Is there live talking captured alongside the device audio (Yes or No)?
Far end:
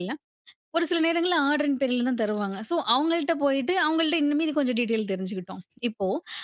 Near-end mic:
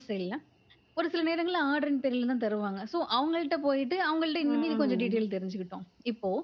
Yes